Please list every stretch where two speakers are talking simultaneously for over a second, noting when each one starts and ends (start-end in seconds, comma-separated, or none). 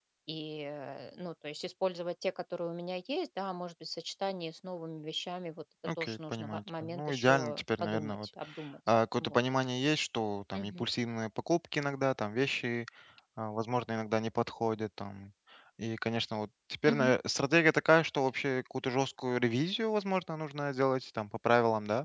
6.0-8.2